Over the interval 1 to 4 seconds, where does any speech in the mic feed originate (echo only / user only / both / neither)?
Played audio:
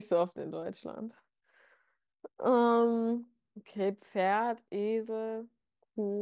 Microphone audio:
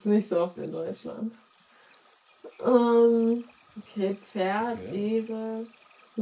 echo only